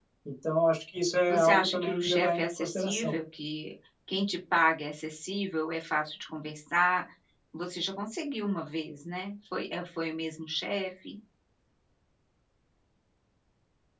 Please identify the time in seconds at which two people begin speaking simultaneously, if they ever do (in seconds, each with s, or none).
1.3 s